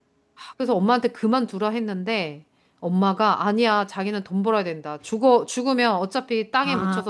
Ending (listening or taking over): listening